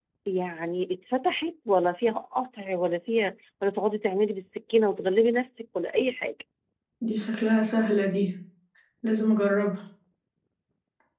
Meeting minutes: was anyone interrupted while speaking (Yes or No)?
No